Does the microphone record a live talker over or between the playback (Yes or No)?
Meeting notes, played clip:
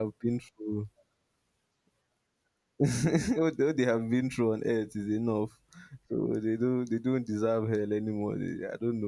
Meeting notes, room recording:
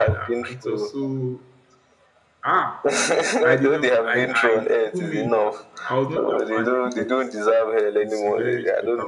Yes